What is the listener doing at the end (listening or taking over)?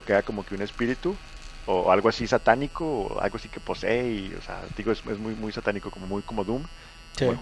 listening